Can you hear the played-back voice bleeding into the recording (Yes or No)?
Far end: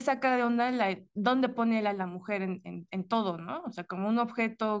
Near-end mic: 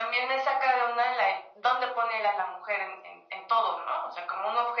Yes